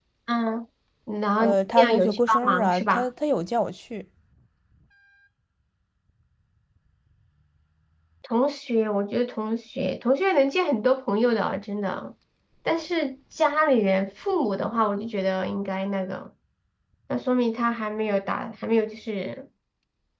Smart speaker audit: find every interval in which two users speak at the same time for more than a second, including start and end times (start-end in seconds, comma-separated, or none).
1.4-3.1